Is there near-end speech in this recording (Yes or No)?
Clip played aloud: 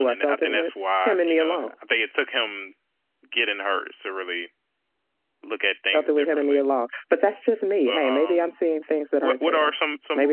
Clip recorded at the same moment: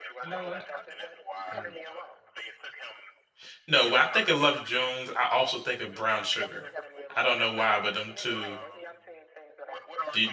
Yes